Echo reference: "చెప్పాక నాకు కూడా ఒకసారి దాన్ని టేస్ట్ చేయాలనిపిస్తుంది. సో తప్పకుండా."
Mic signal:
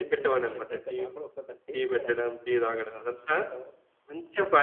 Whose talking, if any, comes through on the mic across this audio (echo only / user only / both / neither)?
both